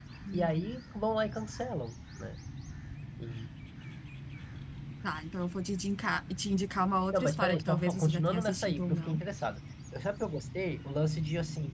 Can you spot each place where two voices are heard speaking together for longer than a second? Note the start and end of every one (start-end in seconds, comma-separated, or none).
7.1-9.2